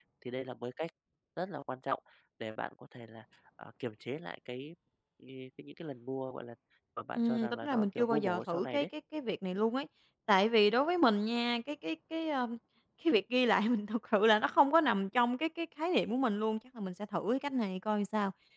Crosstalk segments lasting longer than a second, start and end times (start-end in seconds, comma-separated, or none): 7.2-8.8